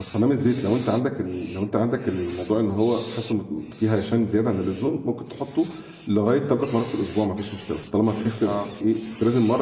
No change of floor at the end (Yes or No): Yes